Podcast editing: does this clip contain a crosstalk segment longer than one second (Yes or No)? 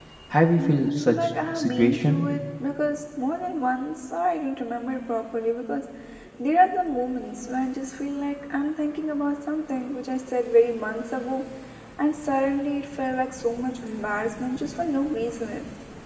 Yes